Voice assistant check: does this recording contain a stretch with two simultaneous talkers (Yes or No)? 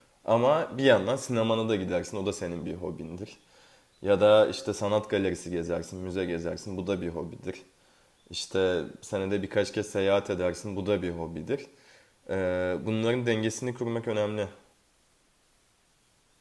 No